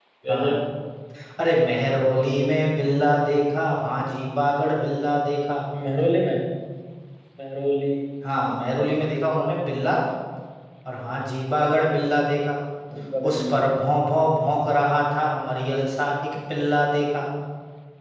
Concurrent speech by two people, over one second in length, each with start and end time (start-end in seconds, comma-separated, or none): none